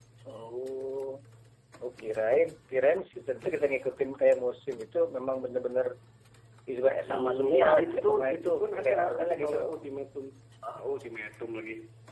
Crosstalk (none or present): present